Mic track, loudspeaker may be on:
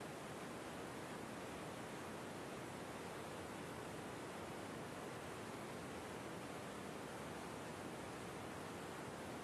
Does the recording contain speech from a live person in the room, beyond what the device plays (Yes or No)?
No